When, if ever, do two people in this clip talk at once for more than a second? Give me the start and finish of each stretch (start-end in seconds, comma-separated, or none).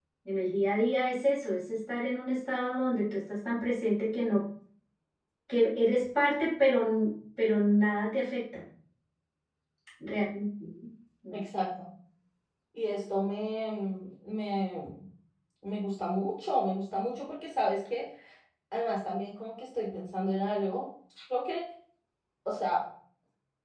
none